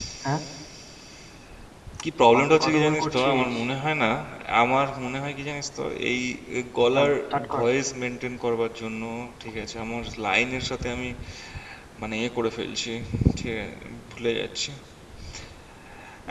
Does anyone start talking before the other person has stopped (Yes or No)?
Yes